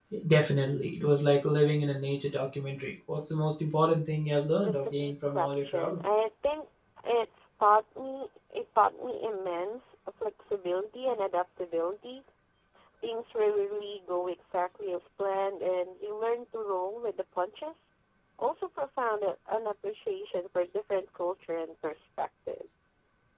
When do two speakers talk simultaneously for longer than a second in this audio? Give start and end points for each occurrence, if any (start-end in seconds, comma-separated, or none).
4.6-6.0